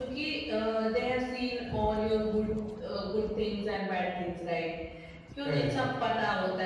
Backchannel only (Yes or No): Yes